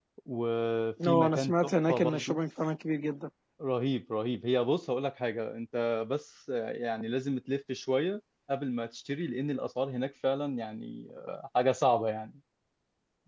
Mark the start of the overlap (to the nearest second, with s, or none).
1 s